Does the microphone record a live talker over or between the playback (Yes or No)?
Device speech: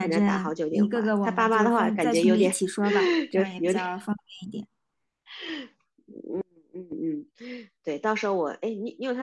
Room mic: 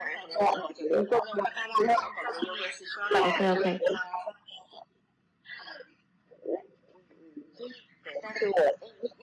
Yes